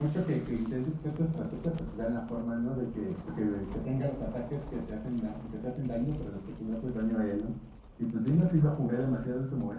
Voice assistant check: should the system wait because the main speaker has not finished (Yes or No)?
Yes